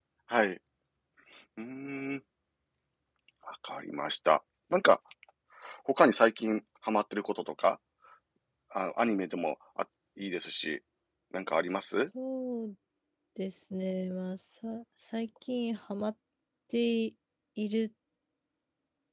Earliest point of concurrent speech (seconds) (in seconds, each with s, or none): none